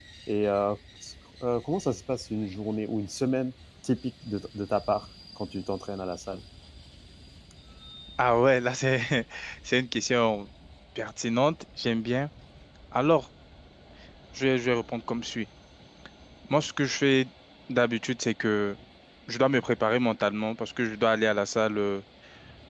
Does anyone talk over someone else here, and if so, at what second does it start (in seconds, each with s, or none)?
none